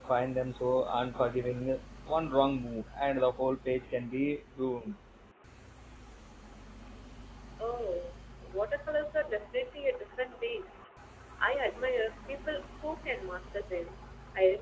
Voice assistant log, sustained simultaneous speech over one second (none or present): none